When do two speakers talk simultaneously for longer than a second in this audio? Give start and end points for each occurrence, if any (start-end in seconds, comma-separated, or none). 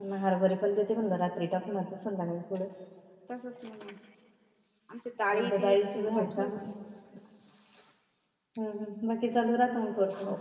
5.3-6.6